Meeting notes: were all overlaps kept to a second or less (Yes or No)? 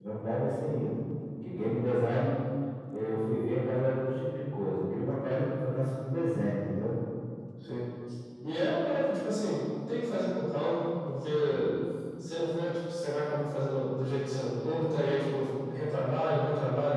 Yes